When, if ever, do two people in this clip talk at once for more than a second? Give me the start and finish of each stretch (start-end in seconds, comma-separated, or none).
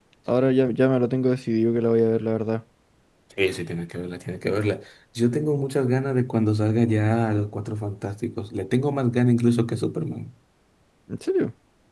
none